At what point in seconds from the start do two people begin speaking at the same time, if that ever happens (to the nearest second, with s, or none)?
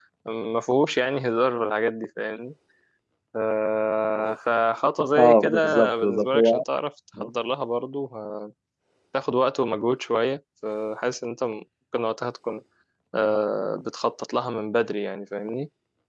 5 s